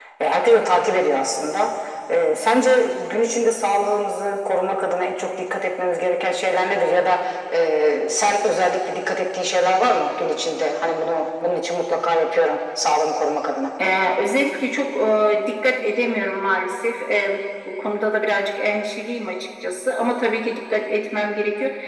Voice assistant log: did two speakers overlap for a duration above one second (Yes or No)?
No